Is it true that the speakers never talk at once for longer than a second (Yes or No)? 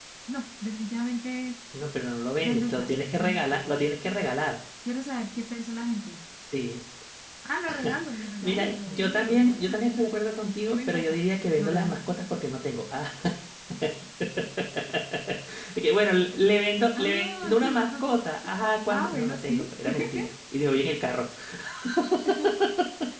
No